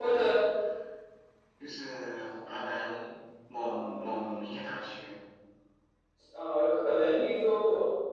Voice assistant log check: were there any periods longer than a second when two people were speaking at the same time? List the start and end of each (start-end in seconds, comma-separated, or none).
none